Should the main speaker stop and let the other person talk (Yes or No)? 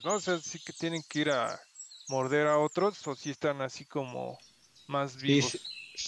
Yes